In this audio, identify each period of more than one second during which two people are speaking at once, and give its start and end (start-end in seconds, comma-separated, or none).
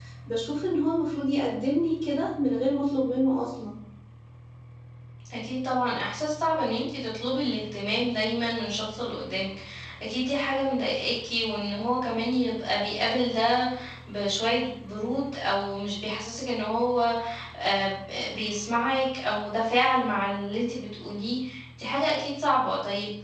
none